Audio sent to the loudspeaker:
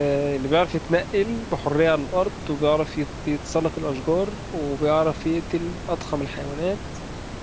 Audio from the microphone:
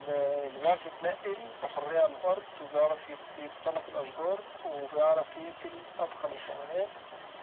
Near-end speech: none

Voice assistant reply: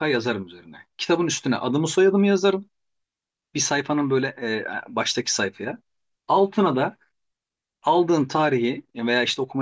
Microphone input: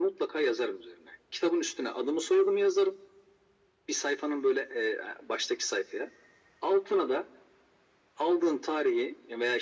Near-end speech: none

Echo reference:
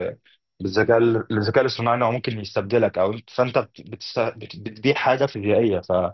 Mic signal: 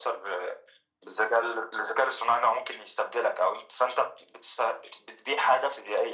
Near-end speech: none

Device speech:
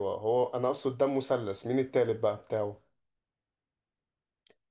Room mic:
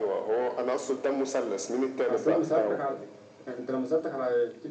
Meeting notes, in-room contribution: present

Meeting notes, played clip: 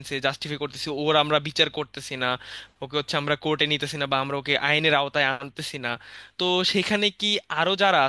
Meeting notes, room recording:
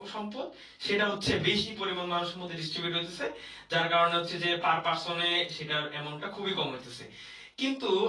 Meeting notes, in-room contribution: present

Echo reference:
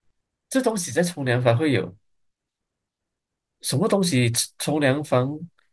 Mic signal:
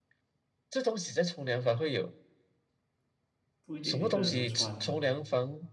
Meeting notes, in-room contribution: present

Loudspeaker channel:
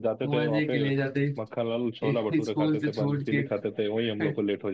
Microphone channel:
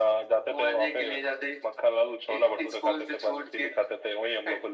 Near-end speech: none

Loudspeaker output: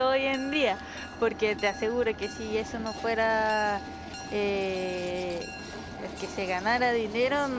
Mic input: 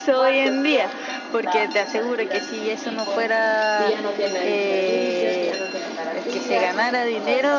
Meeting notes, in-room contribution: present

